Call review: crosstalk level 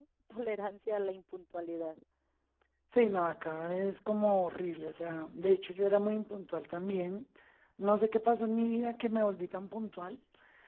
none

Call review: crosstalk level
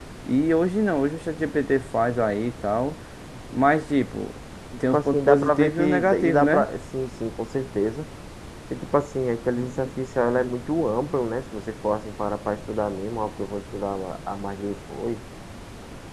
present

